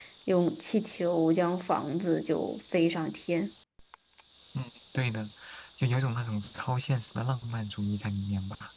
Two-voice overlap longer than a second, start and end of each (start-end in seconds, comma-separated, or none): none